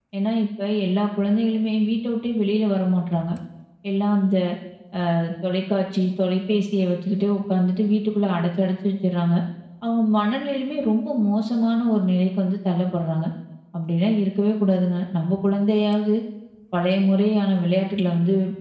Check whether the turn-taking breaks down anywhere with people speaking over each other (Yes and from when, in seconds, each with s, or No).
No